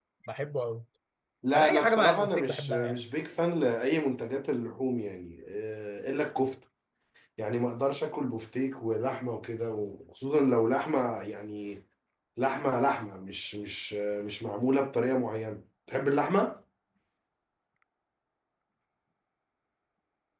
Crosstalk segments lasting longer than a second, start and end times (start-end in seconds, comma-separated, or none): 1.5-3.0